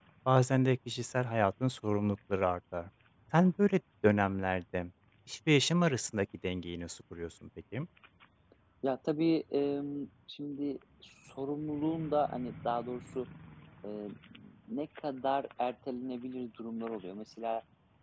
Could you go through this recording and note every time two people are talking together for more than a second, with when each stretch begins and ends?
none

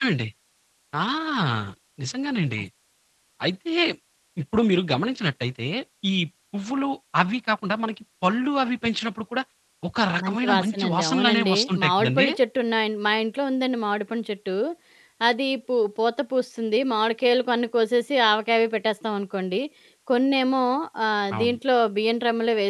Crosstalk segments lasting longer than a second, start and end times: 10.2-12.3

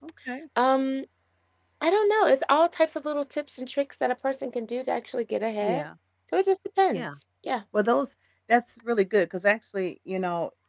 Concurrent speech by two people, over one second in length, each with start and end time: none

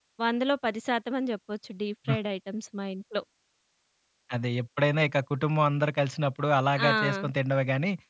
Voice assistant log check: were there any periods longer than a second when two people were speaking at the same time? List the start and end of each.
none

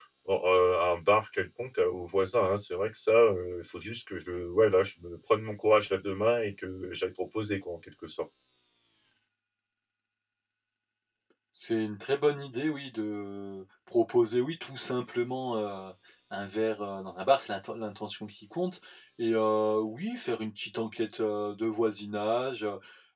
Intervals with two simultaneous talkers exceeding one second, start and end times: none

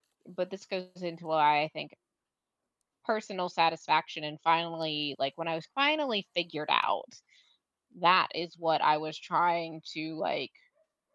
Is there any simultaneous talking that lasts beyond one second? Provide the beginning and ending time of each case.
none

